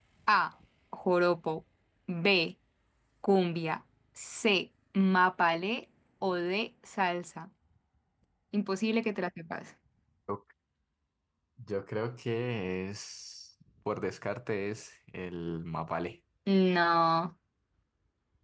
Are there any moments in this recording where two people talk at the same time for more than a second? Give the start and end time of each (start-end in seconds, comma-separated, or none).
none